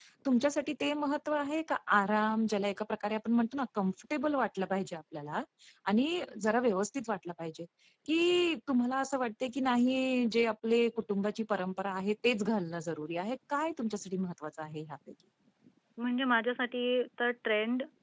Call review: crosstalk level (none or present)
none